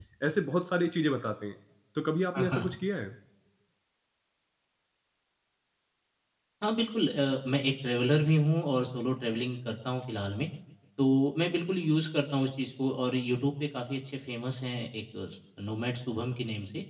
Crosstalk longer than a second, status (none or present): none